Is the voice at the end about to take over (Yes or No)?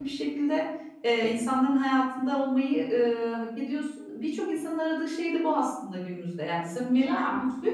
No